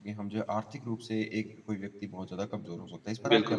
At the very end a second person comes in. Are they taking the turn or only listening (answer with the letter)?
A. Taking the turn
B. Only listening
A